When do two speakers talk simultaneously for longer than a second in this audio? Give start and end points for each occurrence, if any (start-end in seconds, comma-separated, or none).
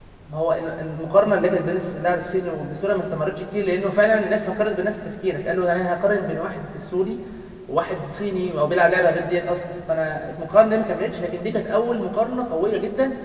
none